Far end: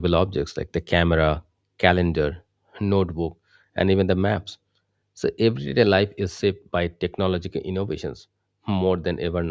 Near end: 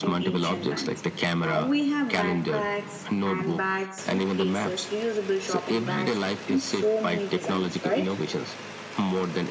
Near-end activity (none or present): present